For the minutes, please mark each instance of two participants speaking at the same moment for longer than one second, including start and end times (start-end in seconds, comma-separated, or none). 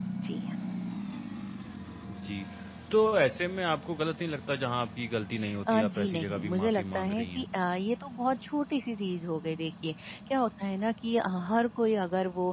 5.7-7.5